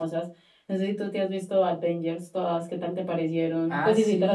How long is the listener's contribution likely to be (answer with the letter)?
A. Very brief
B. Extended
B